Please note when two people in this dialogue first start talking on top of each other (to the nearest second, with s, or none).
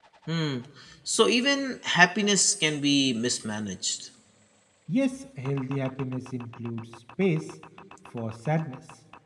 none